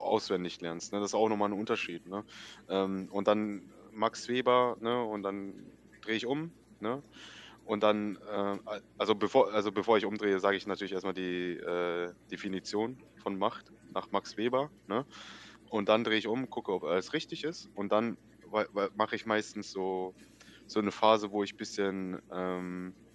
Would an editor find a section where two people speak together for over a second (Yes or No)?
No